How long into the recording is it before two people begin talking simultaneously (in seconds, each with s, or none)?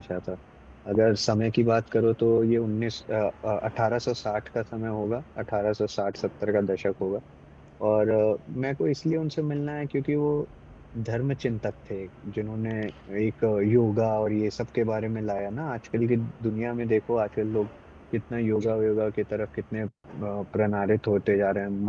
none